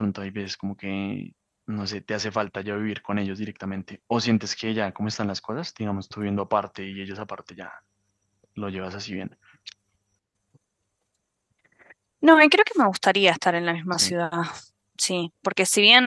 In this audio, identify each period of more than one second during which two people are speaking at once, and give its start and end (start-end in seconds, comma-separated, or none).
none